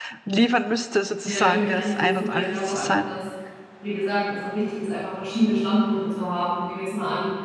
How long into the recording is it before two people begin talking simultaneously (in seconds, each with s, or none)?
1.2 s